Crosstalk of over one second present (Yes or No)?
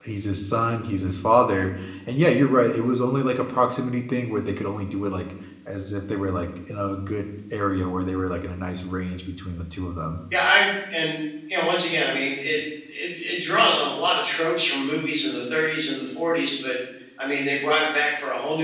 No